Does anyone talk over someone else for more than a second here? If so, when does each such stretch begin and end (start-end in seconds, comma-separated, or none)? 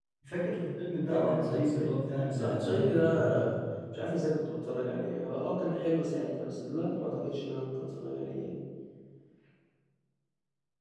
1.1-3.4